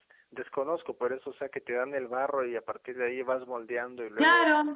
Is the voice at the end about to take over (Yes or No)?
Yes